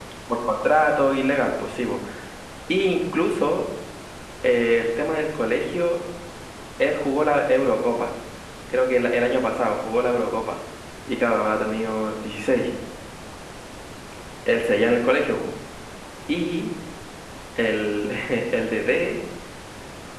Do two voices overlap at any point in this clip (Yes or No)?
No